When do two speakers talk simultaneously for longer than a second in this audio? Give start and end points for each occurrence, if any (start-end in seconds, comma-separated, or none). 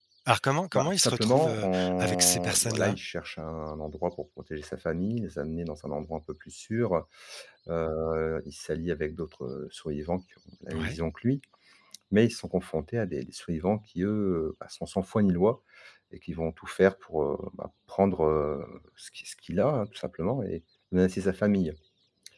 0.7-3.0